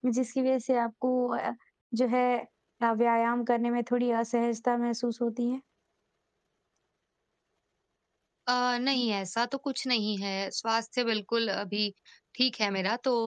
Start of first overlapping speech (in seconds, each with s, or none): none